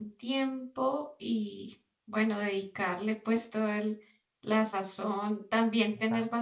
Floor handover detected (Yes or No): No